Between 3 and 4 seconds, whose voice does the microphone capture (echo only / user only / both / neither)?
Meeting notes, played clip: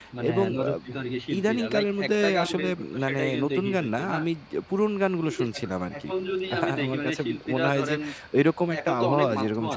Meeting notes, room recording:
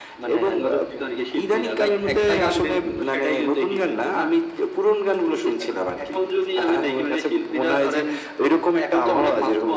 echo only